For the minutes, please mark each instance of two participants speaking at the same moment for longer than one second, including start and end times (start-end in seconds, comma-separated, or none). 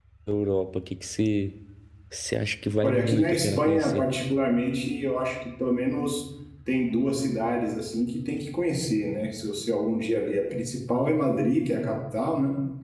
2.8-4.1